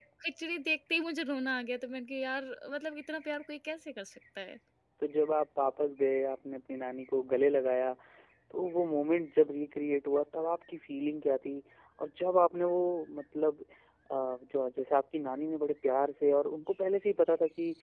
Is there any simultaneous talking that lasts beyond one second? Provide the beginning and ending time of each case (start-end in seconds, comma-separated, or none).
none